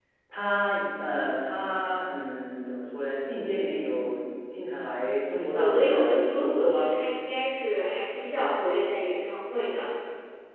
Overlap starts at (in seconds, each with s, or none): 5.6 s